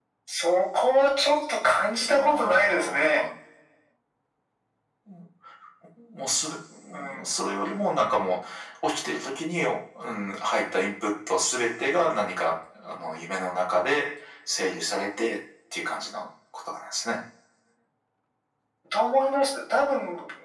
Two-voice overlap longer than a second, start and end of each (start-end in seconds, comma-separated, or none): 2.0-3.2